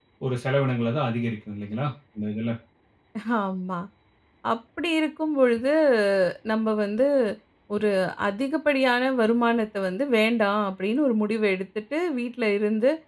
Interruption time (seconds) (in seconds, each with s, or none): none